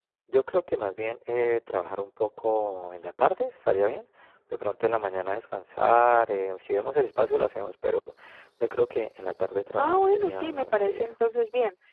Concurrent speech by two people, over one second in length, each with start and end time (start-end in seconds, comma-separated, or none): 9.8-11.2